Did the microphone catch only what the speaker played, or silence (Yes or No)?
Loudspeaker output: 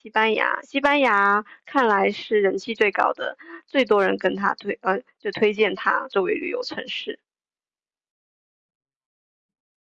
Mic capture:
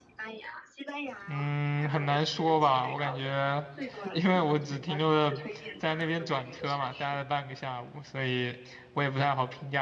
No